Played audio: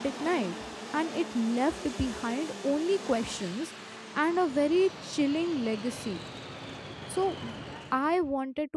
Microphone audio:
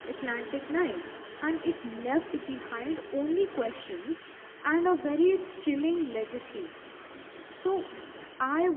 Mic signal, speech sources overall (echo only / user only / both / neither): echo only